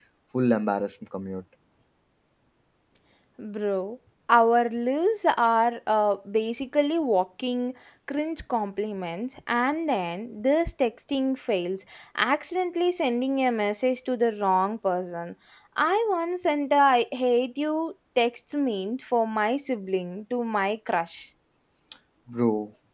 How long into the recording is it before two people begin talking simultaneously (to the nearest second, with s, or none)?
none